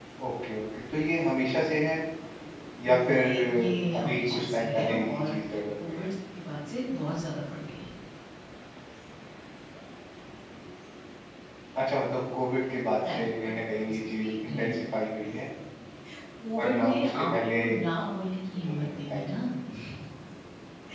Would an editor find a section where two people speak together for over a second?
Yes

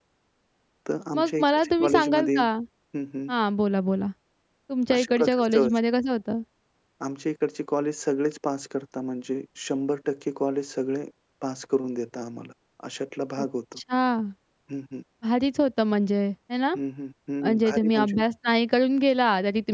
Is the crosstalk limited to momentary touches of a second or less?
No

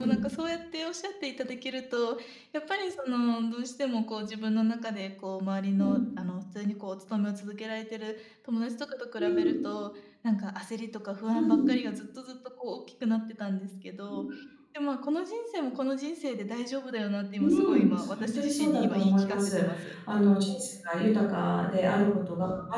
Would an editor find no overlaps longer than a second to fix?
No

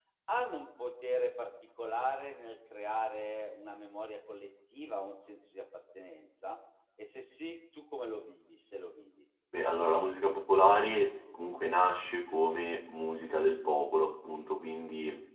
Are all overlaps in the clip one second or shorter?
Yes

